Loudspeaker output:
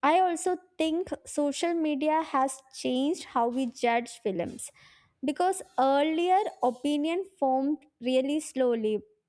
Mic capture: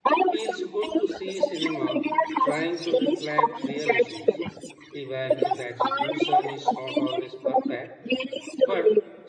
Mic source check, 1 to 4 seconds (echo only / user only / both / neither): both